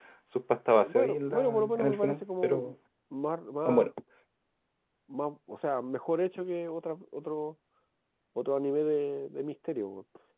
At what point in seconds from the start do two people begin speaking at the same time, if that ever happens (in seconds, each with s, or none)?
0.7 s